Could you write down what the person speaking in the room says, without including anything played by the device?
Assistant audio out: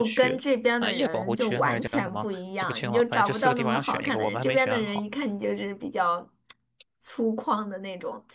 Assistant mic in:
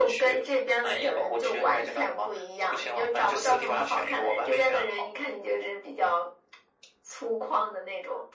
none

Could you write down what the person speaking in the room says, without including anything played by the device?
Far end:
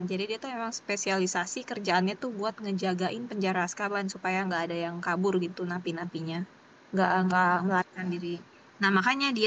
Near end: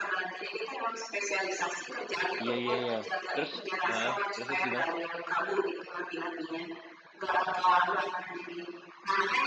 Iya iya iya. Terus, ah, terus terus gimana?

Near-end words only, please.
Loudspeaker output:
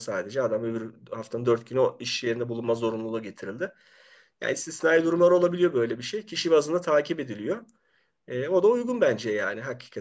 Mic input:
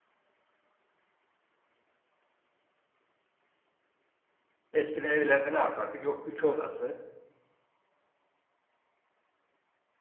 eskiden evlerde ne yapardık? Yok ütü odası,

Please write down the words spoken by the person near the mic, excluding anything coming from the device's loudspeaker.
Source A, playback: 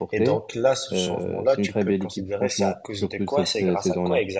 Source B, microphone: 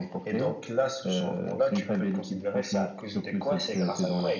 none

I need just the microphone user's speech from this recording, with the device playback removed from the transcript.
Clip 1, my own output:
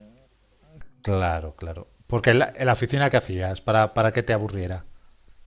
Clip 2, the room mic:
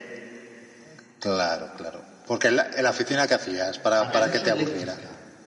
Ah, me has dicho eléctrica.

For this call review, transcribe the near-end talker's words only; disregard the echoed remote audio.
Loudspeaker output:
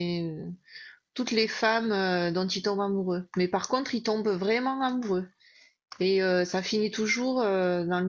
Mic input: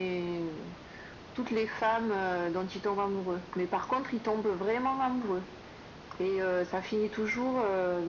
none

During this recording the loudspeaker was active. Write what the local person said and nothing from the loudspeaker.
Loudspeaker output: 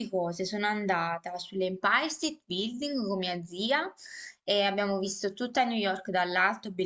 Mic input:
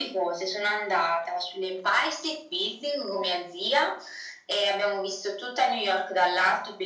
none

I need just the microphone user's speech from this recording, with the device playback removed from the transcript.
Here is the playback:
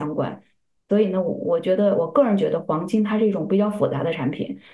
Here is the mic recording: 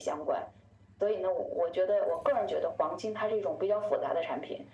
none

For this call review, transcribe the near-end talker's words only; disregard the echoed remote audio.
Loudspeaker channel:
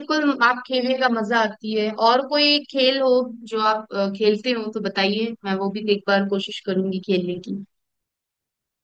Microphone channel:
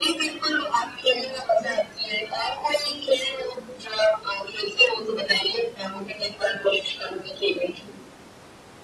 none

